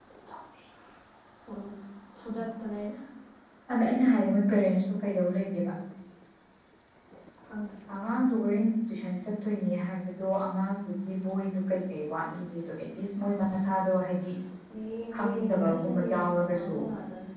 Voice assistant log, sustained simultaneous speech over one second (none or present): present